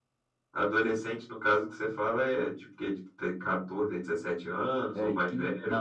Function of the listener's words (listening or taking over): taking over